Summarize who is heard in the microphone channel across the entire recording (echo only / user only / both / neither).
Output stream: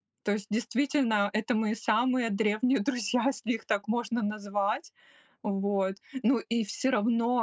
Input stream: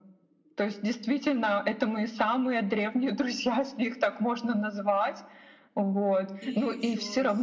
both